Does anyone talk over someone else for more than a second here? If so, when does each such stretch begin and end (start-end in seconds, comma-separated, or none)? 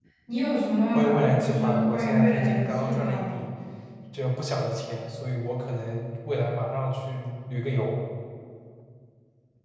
0.9-3.5